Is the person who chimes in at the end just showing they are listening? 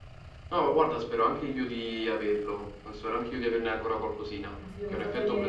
No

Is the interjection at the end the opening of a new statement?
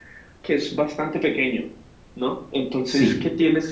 No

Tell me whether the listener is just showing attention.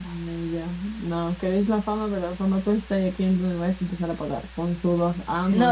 No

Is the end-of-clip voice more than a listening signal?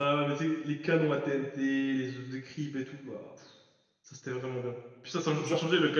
No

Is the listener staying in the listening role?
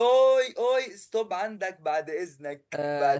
No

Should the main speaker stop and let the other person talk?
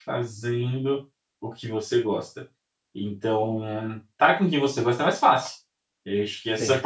No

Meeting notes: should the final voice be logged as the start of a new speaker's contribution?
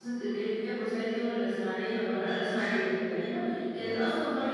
No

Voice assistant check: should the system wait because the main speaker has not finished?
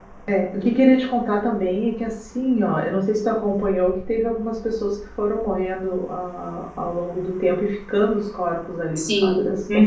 No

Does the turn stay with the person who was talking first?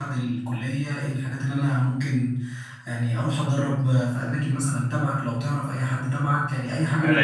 Yes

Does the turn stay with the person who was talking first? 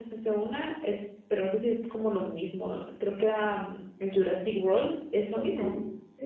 No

